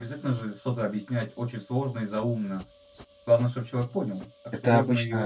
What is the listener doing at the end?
taking over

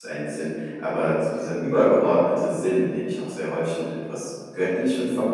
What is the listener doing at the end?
listening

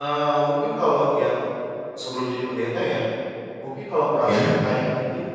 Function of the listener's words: listening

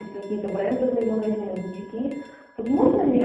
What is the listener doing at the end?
listening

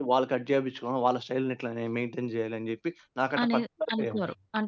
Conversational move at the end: taking over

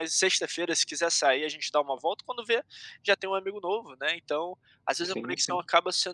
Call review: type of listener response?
listening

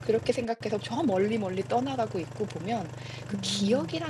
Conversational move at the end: listening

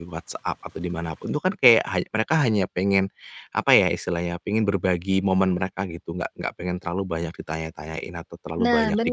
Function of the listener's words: listening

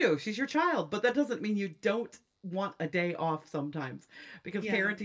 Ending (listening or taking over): listening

